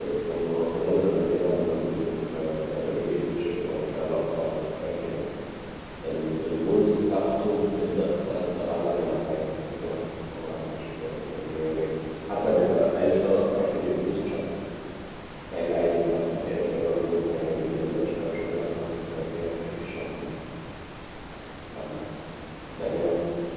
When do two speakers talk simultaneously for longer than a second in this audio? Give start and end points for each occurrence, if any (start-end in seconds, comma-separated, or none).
none